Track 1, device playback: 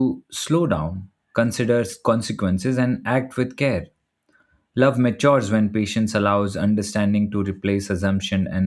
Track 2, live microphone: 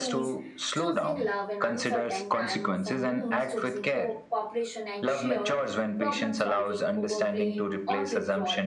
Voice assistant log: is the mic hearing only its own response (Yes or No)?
No